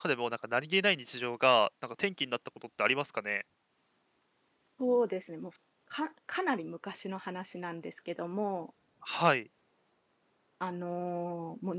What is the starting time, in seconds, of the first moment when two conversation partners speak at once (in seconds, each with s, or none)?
none